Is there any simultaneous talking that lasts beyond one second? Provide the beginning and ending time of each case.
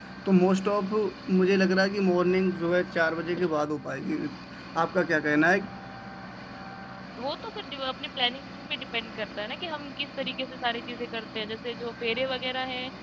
none

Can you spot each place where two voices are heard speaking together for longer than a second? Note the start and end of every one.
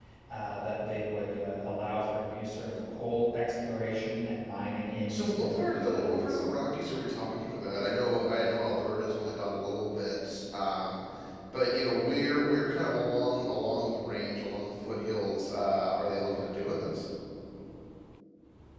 5.1-6.4

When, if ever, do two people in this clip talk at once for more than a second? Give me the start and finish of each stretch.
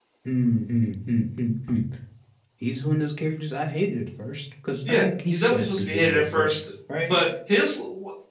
4.9-6.6

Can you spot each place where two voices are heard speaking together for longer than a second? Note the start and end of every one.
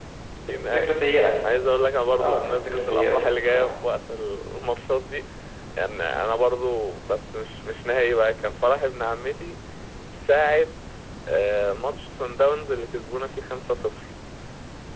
2.2-3.7

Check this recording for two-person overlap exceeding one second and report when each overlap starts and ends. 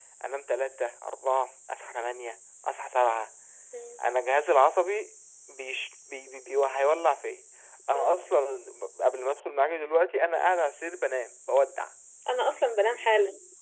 none

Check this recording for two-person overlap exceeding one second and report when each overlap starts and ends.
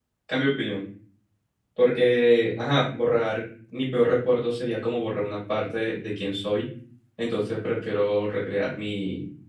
none

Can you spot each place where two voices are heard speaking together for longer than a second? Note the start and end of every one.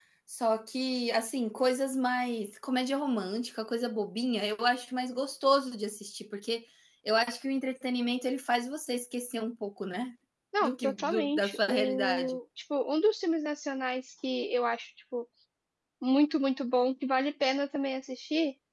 10.6-12.4

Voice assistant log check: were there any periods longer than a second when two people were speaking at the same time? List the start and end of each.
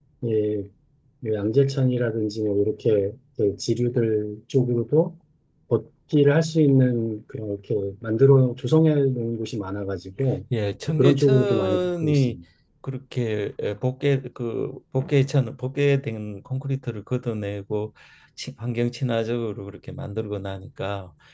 10.9-12.4

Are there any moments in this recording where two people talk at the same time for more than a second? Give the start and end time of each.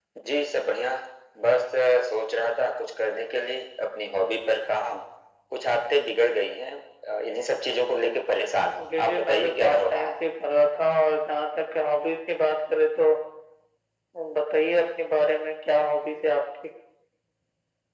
8.9-10.1

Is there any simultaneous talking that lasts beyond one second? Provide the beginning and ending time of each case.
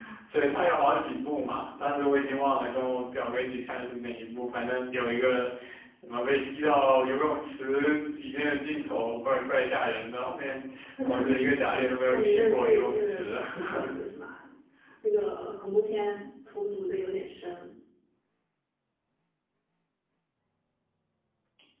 12.1-13.3

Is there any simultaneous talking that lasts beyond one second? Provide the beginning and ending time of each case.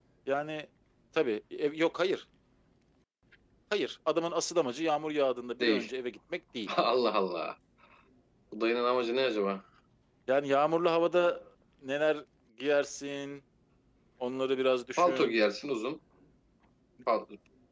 none

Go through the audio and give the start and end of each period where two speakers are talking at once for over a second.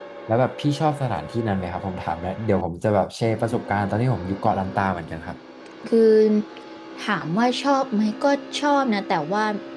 none

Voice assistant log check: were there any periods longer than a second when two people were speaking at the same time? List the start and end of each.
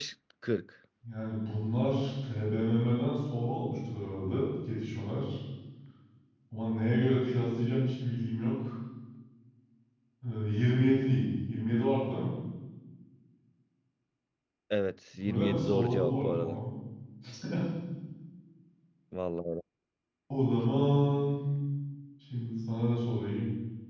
15.2-16.6

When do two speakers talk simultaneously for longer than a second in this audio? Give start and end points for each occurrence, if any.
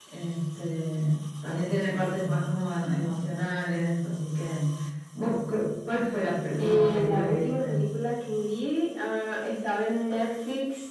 6.6-7.8

